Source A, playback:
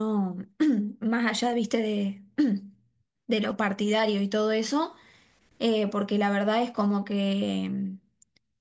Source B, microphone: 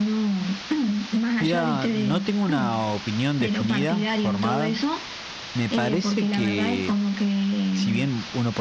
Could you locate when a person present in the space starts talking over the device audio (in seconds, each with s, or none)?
1.4 s